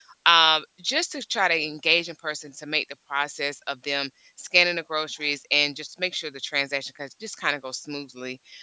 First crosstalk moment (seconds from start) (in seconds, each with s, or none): none